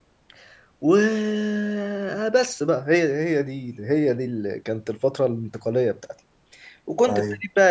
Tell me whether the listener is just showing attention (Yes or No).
Yes